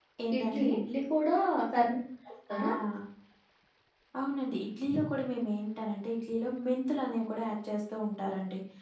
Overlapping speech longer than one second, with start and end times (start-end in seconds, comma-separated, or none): none